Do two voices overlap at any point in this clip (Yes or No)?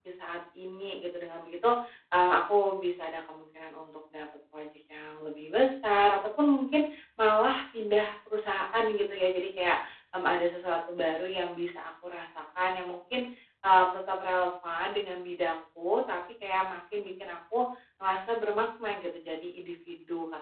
No